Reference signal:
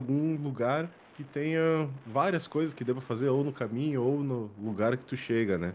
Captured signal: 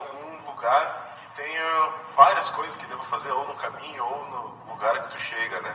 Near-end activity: none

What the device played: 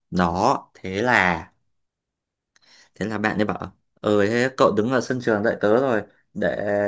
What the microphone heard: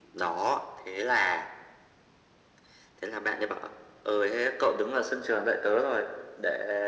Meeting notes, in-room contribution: none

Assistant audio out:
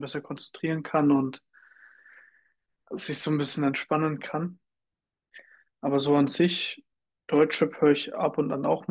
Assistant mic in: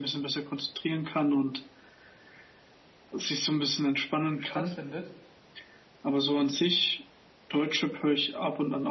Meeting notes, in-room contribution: present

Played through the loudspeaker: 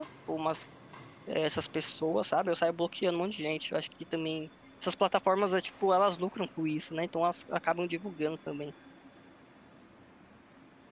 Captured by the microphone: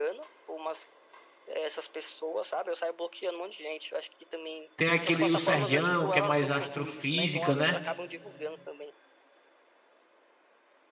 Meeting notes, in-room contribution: present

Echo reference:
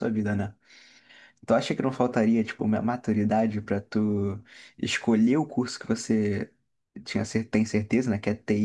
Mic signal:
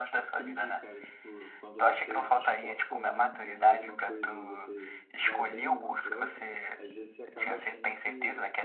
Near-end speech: present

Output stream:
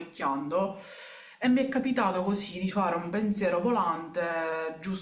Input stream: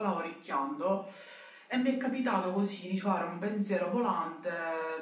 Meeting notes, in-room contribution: none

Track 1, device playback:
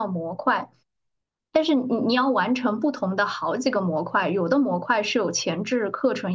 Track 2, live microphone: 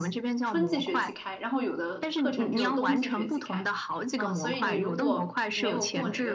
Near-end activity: present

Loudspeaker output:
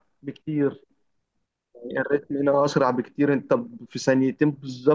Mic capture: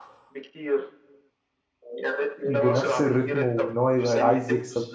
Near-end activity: present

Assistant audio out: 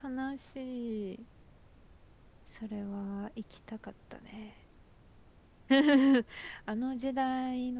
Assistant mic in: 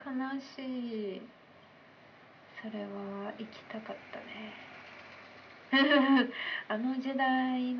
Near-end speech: none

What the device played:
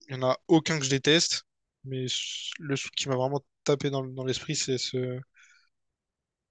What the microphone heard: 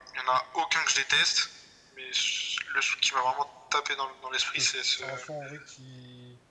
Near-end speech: present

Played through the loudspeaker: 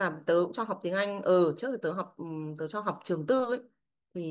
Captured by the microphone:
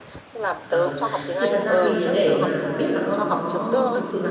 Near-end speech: present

